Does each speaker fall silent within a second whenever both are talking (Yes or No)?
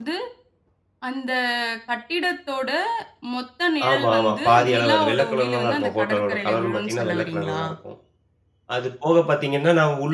No